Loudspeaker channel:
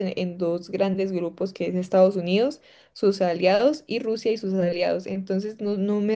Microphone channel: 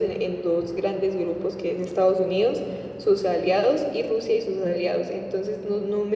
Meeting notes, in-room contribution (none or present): none